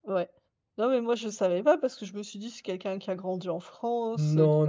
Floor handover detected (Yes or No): Yes